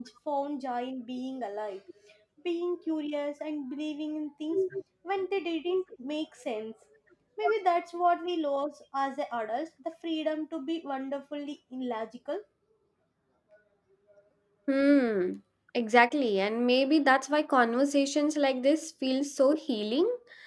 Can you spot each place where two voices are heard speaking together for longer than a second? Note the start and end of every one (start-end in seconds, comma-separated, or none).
none